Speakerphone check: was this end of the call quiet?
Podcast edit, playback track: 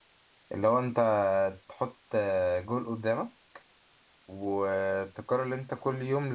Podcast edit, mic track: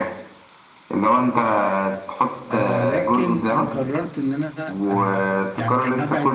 No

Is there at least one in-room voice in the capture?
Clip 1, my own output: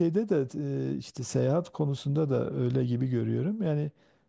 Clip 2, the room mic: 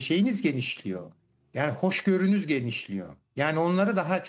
Yes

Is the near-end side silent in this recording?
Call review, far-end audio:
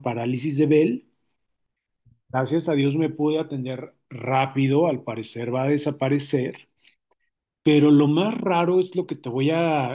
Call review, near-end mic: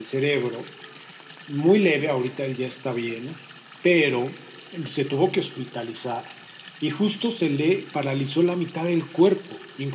No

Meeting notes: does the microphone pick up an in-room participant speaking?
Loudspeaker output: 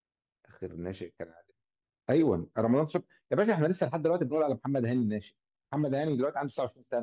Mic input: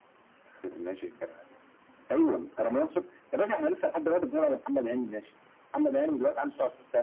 No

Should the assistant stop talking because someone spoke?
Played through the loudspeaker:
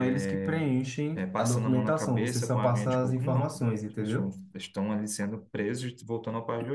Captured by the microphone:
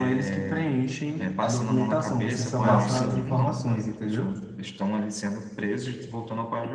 Yes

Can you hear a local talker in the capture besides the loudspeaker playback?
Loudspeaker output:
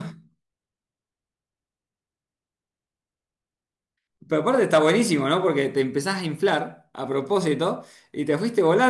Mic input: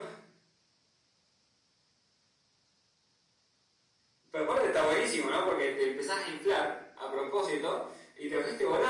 No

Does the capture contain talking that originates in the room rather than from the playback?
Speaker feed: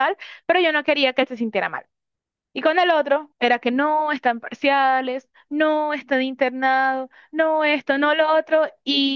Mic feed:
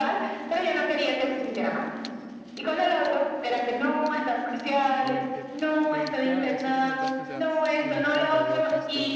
Yes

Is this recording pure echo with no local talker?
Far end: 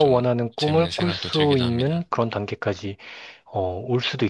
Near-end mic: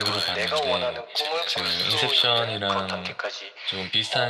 No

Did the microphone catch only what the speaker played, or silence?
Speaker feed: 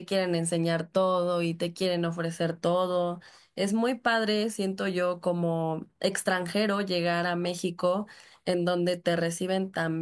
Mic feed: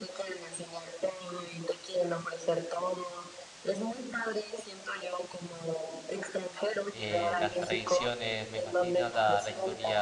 No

